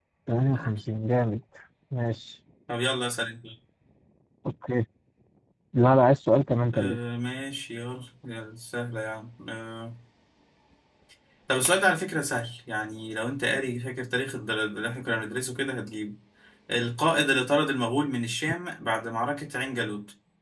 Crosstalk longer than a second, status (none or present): none